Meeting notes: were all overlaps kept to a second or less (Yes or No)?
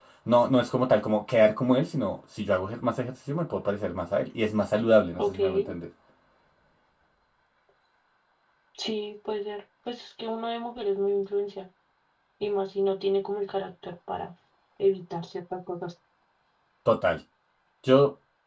Yes